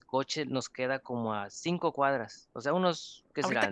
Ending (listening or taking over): taking over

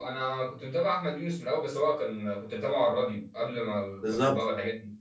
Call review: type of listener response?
taking over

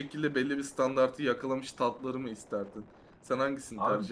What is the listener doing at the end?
taking over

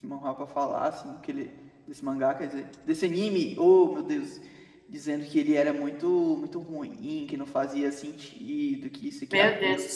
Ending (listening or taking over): taking over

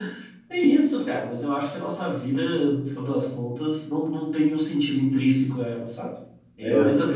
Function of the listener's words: listening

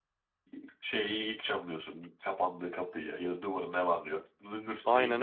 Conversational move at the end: taking over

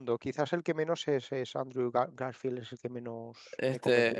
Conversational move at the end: taking over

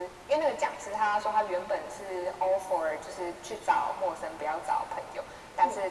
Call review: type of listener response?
listening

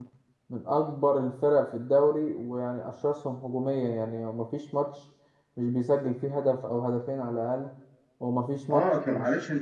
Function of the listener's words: taking over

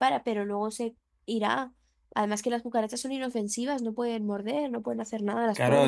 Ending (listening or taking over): taking over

